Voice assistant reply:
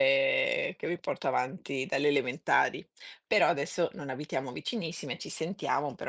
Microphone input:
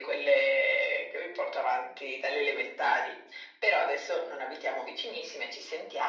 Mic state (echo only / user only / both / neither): echo only